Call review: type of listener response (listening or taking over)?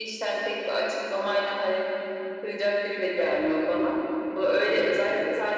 listening